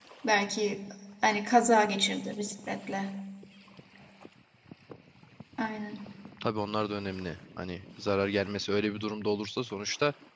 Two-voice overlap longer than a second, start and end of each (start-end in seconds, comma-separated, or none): none